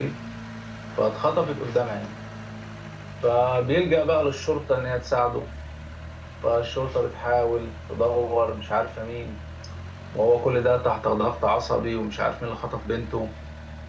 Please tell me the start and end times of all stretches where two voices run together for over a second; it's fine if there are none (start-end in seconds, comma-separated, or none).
none